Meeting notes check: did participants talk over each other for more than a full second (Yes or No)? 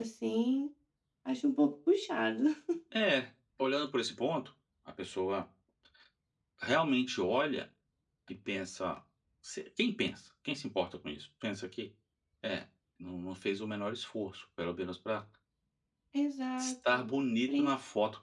No